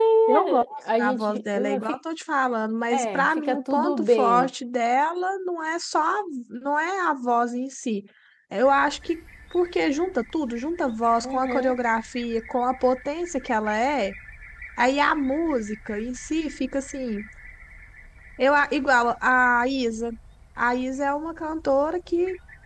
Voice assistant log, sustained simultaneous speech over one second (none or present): present